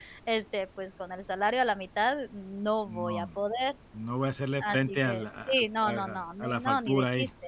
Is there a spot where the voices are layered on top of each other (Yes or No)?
Yes